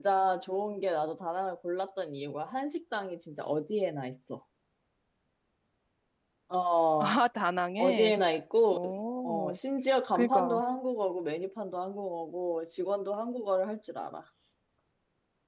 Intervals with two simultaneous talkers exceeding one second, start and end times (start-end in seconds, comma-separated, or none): none